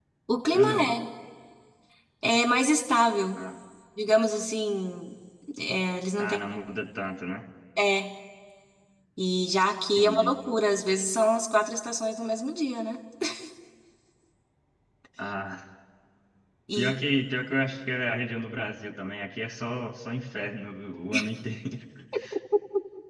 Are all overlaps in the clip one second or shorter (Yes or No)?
Yes